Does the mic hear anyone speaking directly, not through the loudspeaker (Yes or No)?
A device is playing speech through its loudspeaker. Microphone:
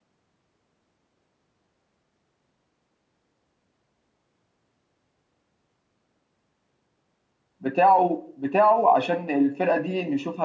Yes